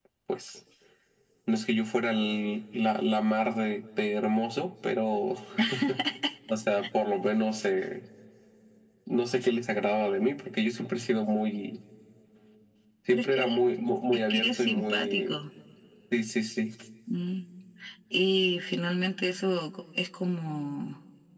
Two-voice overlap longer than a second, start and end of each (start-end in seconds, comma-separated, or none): 14.1-15.3